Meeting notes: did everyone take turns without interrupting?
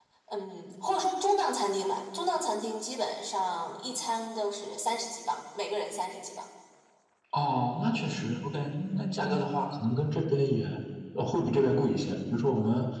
Yes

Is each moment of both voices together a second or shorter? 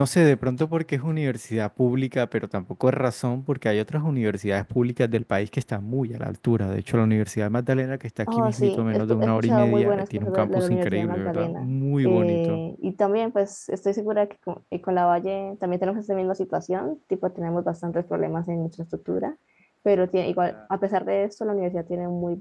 No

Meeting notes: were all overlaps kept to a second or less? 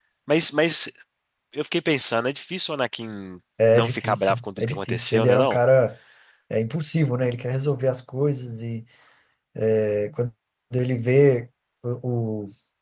No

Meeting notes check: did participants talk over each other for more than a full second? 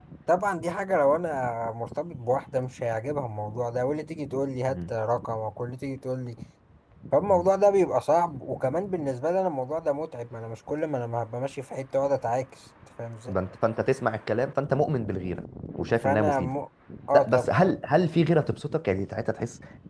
No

